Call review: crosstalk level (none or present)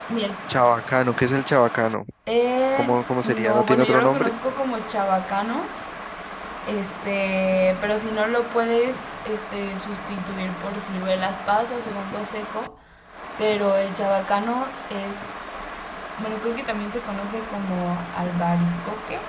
present